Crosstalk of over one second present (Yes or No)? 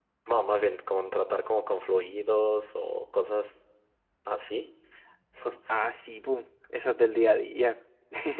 No